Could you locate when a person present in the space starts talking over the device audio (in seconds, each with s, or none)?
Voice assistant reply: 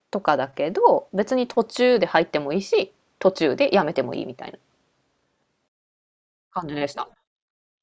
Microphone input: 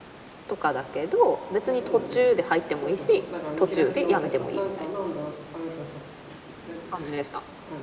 1.6 s